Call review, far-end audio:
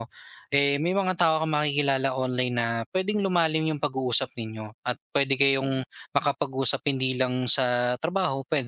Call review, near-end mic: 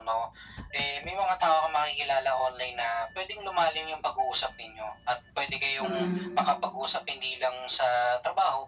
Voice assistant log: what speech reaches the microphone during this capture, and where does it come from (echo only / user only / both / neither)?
both